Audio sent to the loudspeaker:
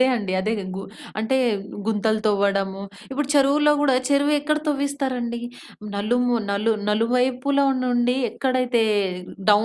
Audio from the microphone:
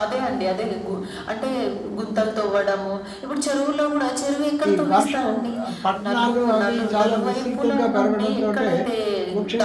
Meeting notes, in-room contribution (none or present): present